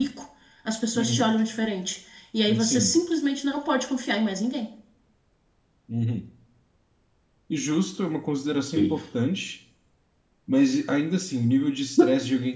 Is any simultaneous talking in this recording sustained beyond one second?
No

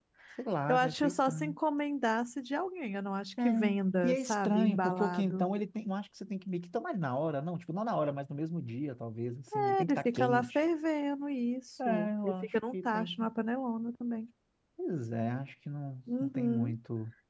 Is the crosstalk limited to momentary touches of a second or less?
No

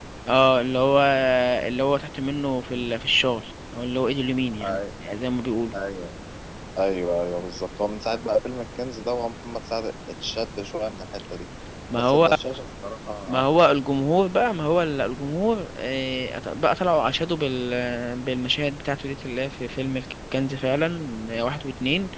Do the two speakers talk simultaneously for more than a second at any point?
No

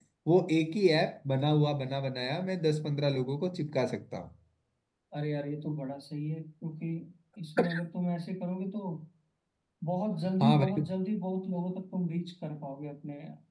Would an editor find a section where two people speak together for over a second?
No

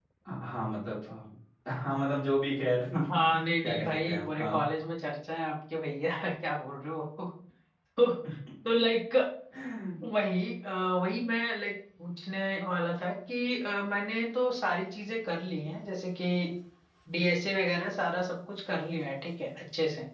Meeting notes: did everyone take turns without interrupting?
No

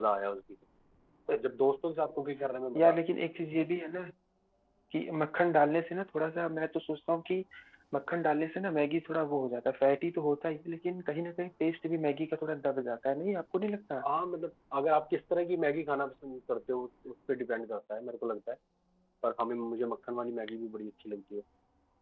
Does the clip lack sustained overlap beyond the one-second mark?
Yes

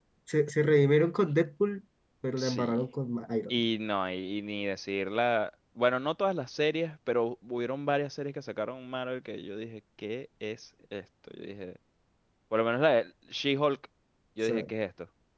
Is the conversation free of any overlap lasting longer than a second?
Yes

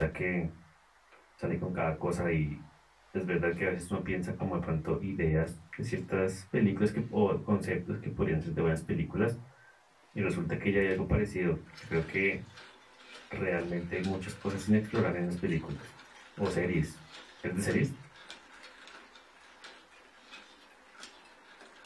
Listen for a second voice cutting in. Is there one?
No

